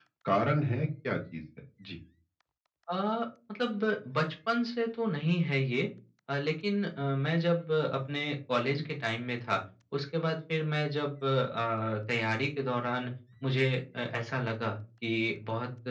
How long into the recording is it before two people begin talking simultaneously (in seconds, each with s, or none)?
none